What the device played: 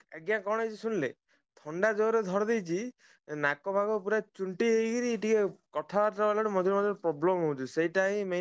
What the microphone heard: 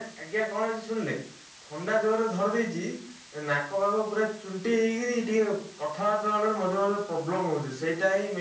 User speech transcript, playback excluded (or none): none